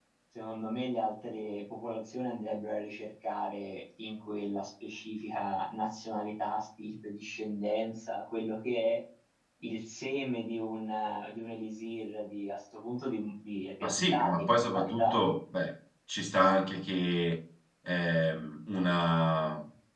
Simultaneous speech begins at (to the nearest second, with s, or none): 14 s